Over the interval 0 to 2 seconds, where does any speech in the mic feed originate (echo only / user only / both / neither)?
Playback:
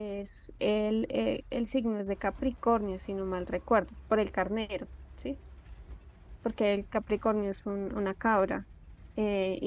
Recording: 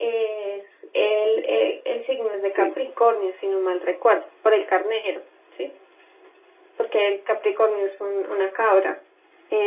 echo only